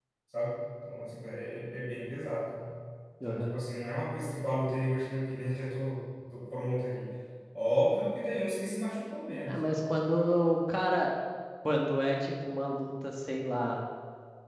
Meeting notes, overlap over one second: none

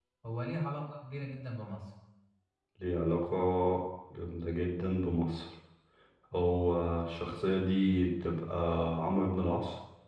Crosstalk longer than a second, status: none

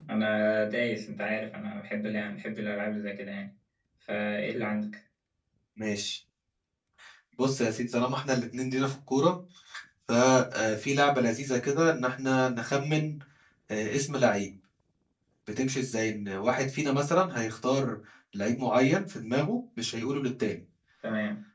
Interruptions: none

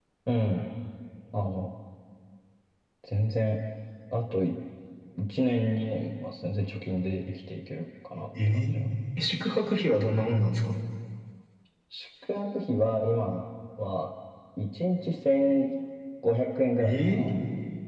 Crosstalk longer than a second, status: none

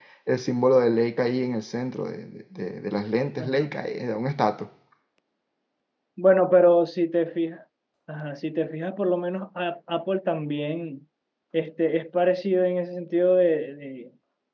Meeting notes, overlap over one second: none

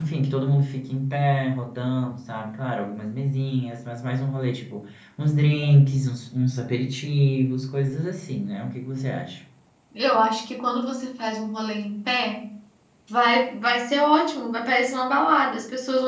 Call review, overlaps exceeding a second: none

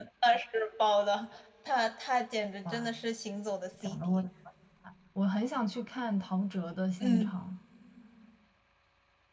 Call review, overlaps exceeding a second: none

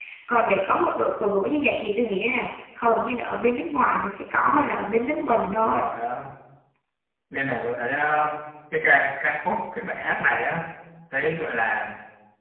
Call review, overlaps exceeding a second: none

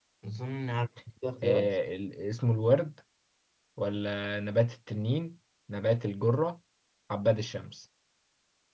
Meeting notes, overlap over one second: none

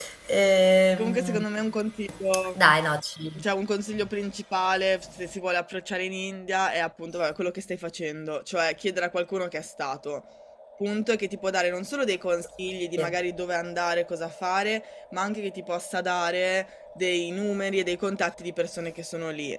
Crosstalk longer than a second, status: none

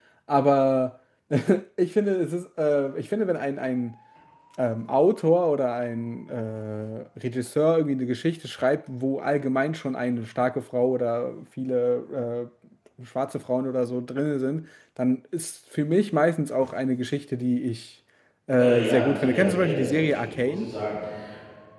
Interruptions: present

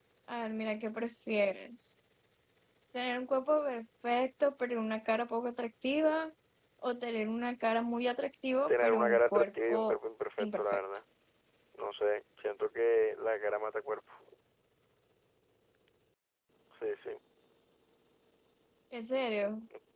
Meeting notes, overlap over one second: present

